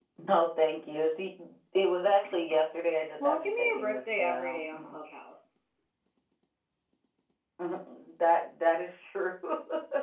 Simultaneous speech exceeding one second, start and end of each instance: 3.2-5.0

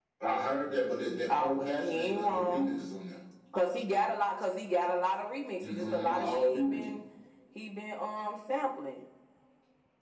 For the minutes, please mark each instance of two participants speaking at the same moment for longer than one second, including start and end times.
1.3-2.8, 5.6-6.8

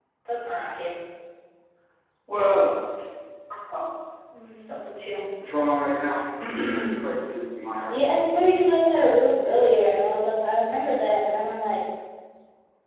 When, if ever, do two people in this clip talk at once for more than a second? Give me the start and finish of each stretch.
none

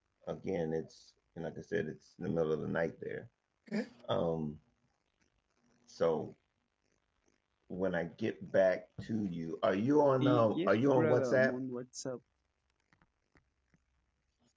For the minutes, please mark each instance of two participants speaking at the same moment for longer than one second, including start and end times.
10.2-11.6

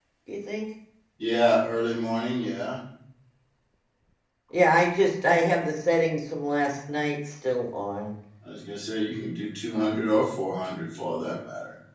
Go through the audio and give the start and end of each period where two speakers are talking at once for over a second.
none

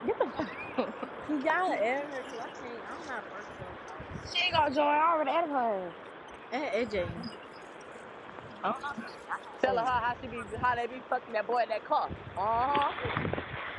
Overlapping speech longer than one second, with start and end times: none

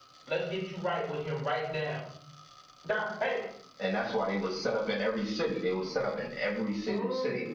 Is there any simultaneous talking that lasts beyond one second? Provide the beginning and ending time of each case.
none

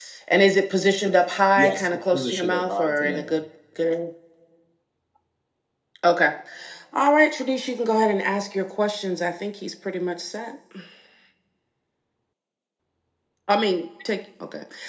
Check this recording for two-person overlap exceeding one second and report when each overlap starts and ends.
1.6-3.4

